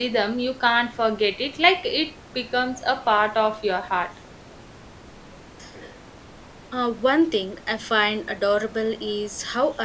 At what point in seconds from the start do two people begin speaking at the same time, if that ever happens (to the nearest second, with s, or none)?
none